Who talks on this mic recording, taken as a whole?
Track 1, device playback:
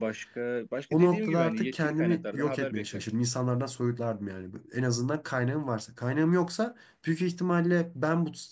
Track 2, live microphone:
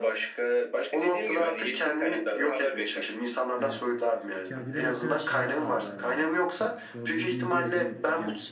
both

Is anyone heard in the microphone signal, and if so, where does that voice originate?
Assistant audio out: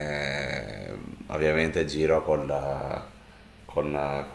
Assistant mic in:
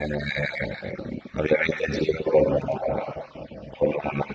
echo only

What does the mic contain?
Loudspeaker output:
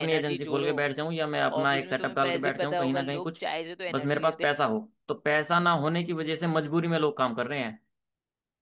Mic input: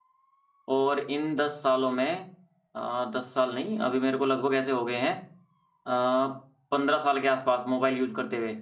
user only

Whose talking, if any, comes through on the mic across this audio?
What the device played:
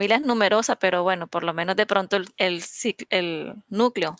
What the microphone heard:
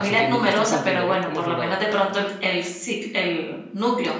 both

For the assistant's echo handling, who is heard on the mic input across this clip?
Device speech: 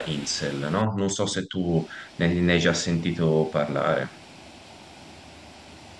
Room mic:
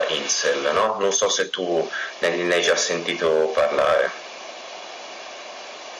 echo only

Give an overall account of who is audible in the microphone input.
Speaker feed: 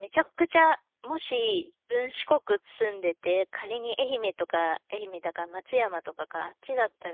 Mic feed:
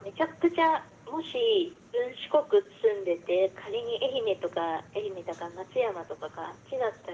echo only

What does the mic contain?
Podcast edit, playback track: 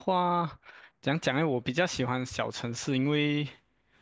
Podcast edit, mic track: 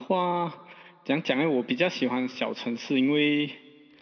echo only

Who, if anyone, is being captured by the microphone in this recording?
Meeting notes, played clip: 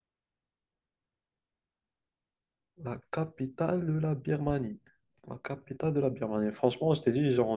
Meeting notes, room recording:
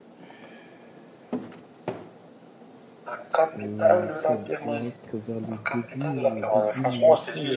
both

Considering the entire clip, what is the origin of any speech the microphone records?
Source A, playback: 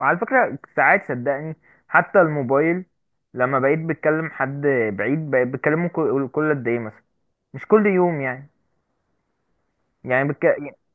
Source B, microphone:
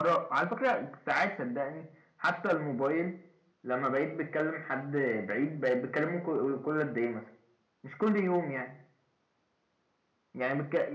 echo only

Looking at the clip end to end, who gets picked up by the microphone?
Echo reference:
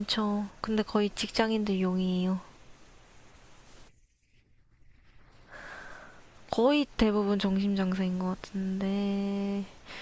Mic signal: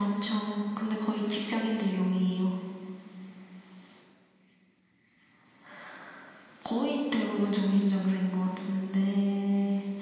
echo only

